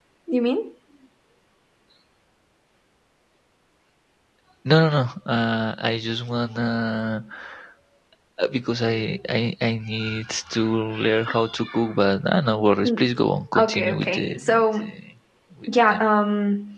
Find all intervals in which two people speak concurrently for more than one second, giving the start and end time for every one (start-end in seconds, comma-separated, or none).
13.6-14.9